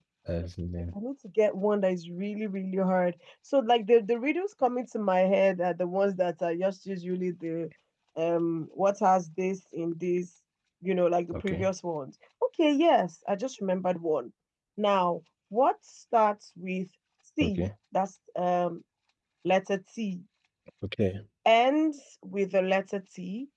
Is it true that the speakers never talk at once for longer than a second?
Yes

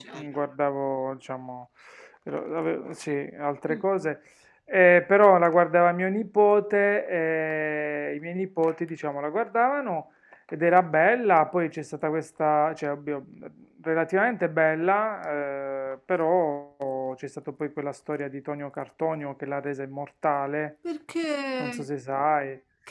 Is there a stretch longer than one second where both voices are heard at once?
No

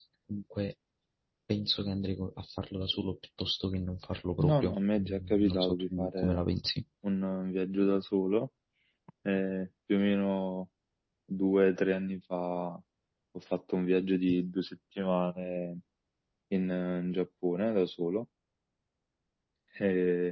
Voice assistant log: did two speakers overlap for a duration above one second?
Yes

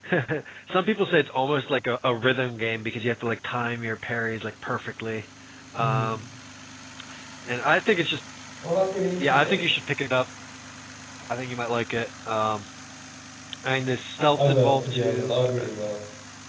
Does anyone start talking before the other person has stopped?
Yes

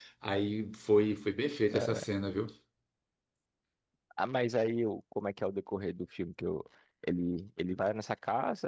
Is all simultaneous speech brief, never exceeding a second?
Yes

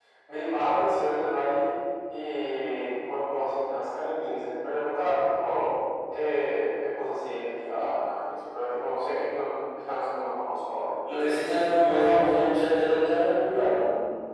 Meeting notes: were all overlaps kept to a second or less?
Yes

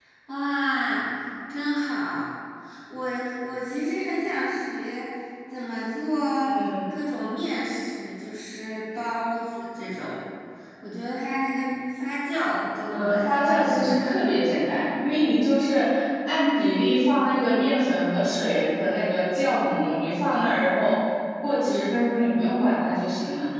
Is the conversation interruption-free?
No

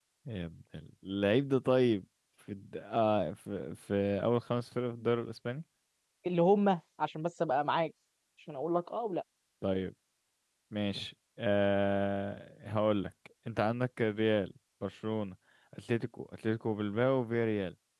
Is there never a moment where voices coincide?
Yes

